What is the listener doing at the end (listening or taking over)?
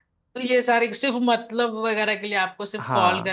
listening